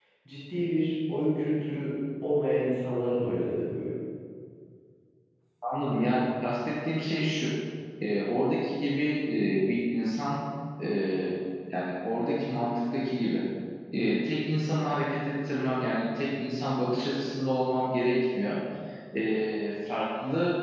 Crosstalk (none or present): none